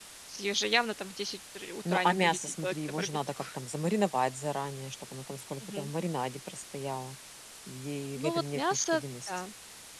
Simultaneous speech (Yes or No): Yes